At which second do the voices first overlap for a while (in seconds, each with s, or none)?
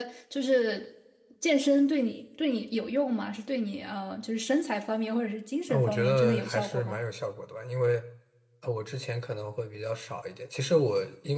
5.7 s